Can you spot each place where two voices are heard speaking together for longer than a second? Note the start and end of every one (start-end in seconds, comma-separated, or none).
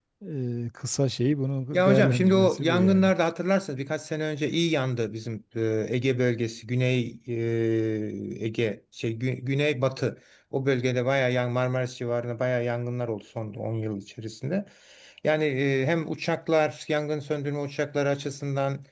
1.7-3.1